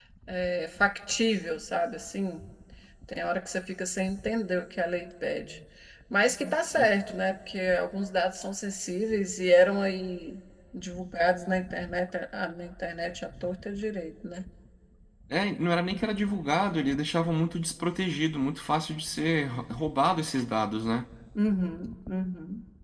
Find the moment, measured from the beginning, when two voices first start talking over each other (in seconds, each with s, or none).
none